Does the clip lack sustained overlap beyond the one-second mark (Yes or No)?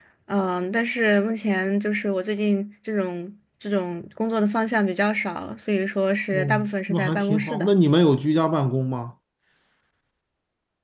No